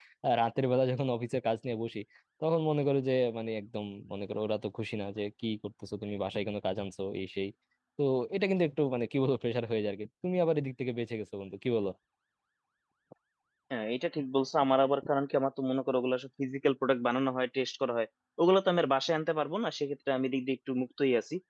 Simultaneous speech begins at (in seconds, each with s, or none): none